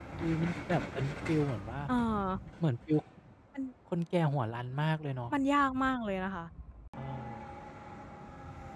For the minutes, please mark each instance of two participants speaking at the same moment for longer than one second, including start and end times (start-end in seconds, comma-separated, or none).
none